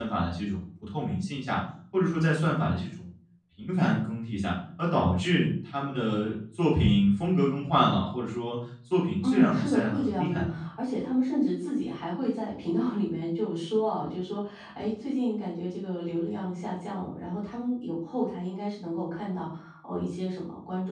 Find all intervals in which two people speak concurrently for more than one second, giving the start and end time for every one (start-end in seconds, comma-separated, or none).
9.2-10.5